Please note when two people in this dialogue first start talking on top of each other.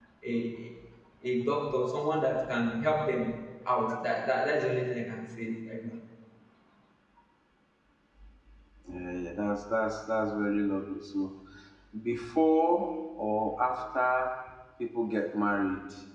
none

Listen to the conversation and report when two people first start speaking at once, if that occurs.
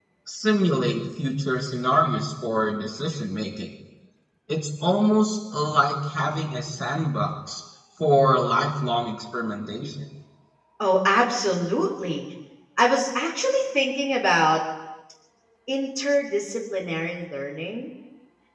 none

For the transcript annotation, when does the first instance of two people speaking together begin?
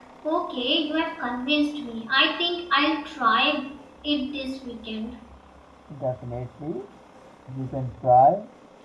none

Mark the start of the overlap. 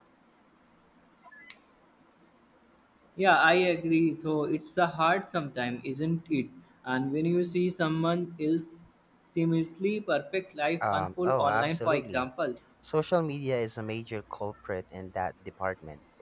11 s

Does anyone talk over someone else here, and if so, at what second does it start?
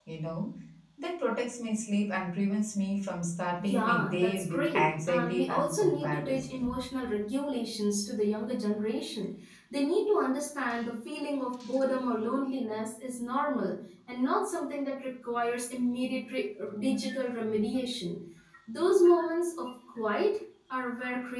4 s

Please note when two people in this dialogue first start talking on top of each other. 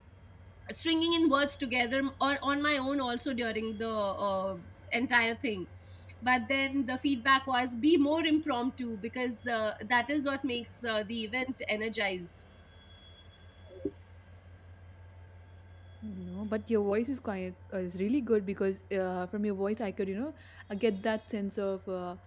none

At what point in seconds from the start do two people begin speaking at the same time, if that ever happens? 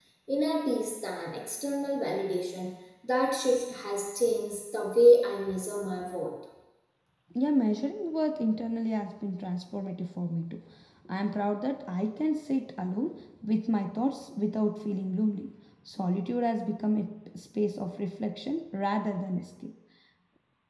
none

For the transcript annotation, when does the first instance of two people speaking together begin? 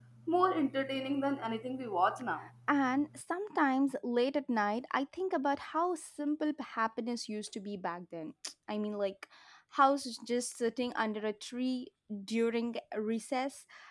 none

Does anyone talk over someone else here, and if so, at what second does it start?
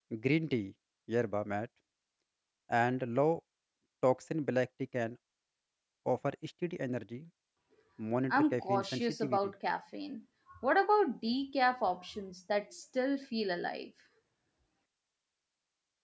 8 s

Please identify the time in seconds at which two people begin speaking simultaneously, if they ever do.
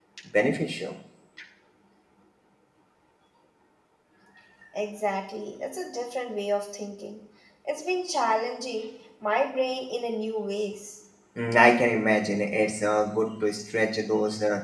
none

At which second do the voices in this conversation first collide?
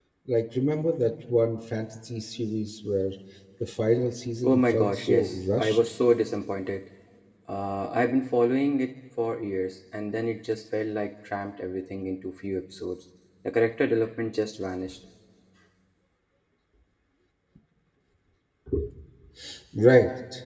4 s

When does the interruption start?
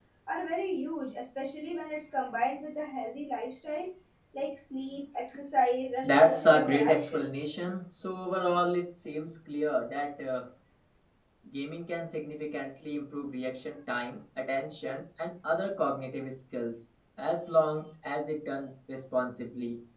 6 s

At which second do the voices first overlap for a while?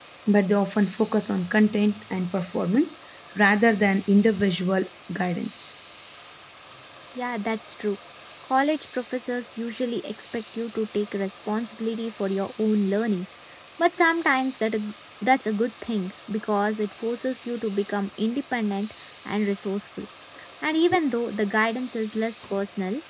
none

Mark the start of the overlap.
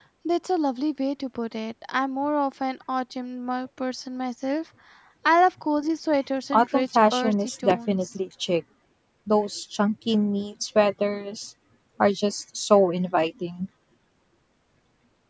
7 s

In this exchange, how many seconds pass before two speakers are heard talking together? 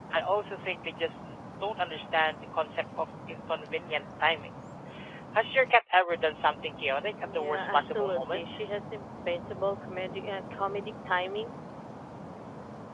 7 s

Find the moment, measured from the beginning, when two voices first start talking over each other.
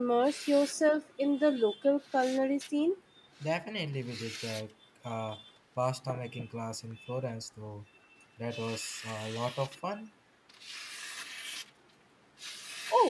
none

